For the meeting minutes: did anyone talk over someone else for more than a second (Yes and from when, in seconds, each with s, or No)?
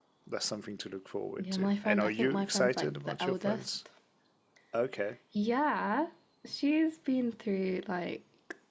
Yes, from 1.4 s